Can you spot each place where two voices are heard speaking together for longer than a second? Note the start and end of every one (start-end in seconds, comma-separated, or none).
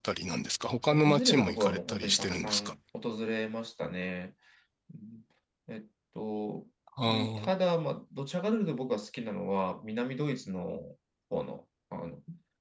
0.9-2.7